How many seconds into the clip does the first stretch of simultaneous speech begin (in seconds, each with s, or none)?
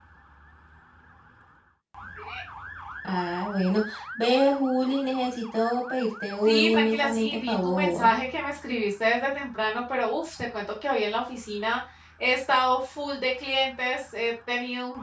6.5 s